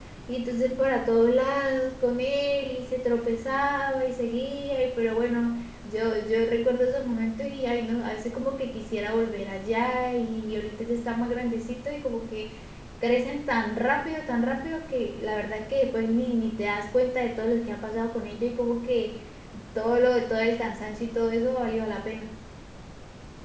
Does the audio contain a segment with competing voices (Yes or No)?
No